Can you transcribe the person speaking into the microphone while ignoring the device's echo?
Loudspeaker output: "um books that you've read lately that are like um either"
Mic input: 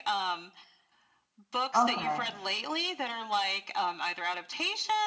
Okay.

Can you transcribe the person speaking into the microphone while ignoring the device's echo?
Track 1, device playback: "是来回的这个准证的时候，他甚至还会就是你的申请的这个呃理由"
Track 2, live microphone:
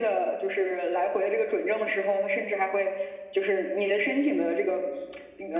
none

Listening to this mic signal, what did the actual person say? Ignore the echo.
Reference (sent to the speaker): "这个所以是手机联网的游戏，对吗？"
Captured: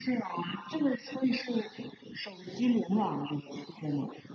none

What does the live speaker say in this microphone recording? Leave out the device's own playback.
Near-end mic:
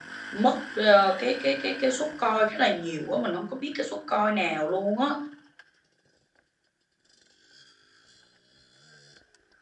mất ờ, cái cái cái cái suất coi khá là nhiều quá mình không có biết cái suất coi nào luôn á

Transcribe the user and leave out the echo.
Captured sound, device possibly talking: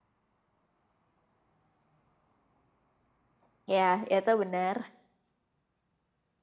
ya, ya itu benar.

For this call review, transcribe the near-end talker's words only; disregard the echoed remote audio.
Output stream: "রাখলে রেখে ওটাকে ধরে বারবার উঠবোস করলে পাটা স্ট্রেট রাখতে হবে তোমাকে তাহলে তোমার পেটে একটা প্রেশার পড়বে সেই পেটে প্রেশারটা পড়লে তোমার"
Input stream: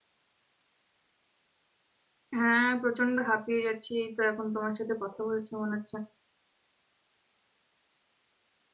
হ্যাঁ প্রচন্ড হাঁপিয়ে যাচ্ছি এই তো এখন তোমার সাথে কথা বলছি মনে হচ্ছে

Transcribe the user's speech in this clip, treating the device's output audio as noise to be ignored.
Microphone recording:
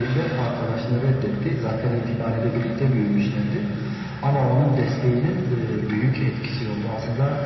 none

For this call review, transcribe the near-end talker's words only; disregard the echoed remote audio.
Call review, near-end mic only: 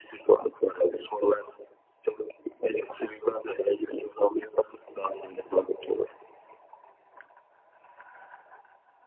none

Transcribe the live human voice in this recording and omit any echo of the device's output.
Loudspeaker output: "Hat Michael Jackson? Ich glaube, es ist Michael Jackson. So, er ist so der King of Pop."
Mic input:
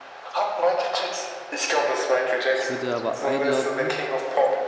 Ich würde aber einloggen

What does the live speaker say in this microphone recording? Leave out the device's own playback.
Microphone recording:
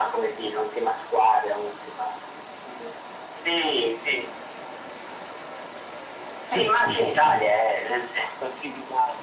Sì, sì, sì, sì, anche.

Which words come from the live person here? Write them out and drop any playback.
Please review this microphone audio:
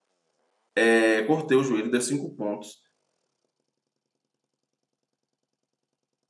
é, cortei o joelho, deu cinco pontos.

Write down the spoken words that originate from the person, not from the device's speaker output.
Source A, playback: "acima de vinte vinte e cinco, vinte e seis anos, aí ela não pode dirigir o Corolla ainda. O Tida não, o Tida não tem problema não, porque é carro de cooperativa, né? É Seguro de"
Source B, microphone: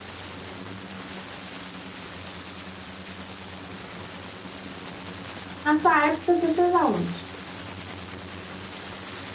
Na sua época, você fez aonde?

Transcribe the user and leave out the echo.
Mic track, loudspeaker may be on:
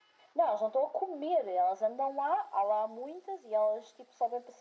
none

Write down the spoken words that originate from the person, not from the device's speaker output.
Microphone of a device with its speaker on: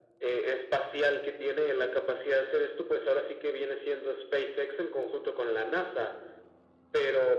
none

